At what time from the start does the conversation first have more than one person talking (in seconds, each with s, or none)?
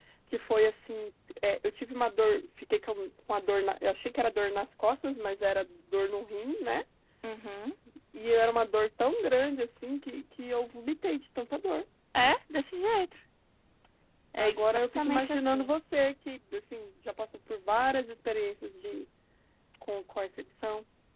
14.4 s